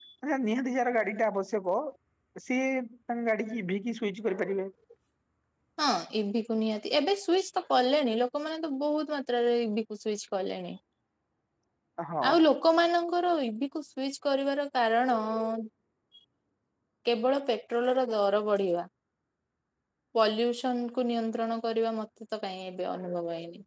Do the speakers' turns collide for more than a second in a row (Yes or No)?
No